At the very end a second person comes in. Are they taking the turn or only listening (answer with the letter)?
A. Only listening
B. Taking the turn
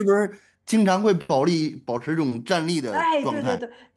B